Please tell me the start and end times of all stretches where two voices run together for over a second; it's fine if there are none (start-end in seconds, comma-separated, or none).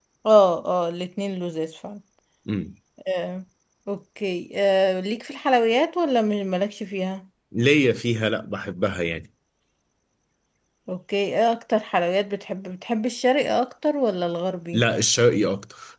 none